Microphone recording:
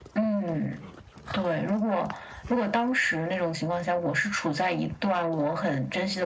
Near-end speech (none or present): none